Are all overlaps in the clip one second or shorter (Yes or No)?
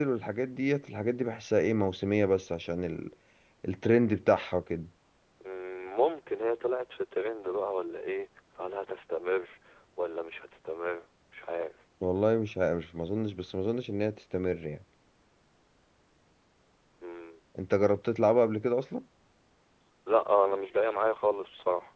Yes